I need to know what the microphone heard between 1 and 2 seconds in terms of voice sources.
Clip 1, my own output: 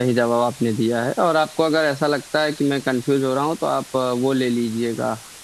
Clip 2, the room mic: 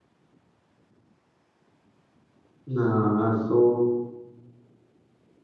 neither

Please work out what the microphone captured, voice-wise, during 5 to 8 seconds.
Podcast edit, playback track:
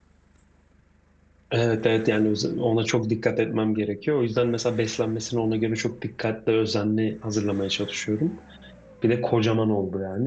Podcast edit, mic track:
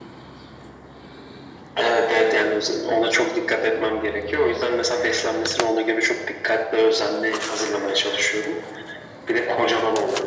echo only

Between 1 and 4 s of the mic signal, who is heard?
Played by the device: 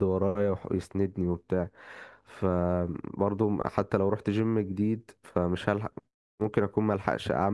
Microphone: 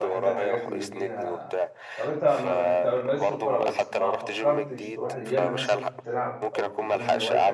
both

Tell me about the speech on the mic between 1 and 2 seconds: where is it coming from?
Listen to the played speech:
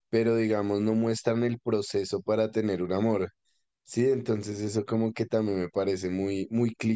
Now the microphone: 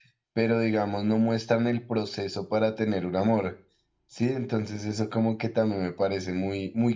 echo only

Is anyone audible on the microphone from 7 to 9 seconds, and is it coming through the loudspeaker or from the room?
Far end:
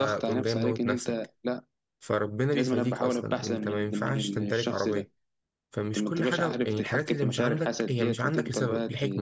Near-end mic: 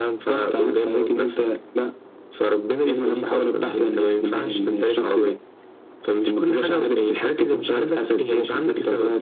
echo only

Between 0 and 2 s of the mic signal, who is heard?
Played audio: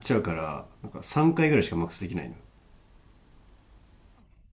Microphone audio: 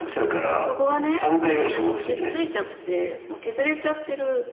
both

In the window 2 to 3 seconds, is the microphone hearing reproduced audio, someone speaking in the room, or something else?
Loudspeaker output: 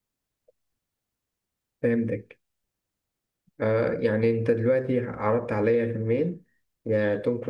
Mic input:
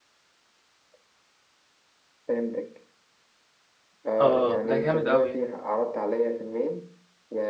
echo only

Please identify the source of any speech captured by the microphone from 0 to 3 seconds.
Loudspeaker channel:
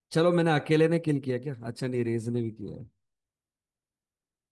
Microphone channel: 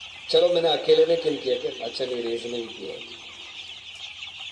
echo only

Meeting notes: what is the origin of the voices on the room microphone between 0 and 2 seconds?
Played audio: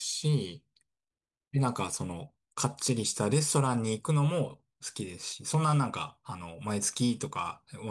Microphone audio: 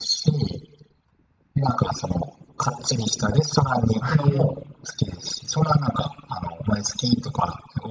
echo only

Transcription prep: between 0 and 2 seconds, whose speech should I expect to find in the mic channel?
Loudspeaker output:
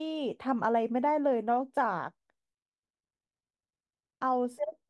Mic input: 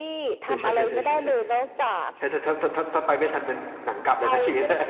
both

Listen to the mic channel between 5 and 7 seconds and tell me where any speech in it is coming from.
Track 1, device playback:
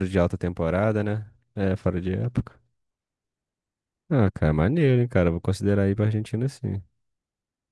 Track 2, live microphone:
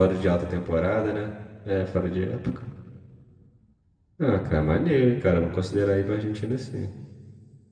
echo only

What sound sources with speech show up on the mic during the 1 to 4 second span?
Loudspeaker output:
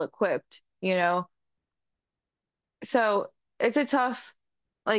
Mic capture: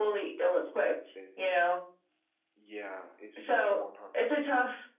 both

